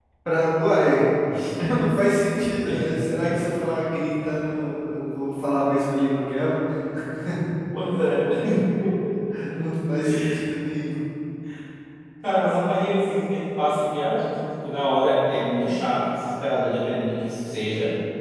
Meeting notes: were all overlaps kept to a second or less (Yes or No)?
Yes